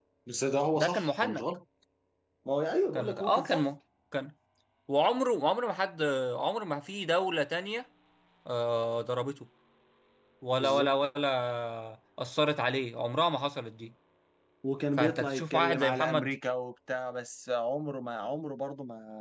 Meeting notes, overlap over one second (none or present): present